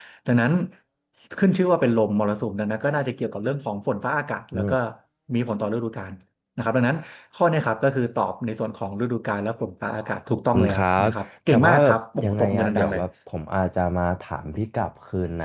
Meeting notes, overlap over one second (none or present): present